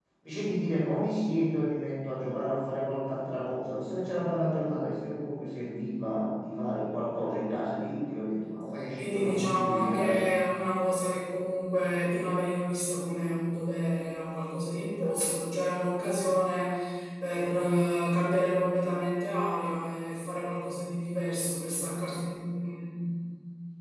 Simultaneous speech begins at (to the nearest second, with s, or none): 9 s